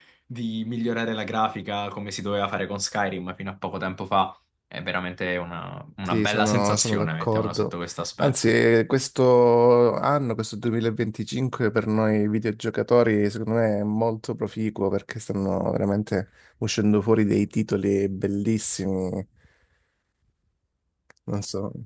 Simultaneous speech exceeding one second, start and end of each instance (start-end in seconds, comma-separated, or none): 6.0-7.7